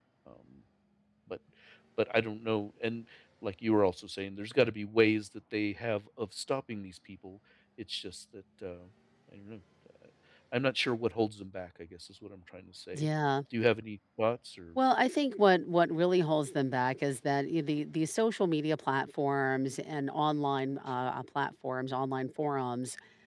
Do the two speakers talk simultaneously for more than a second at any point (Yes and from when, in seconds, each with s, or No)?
No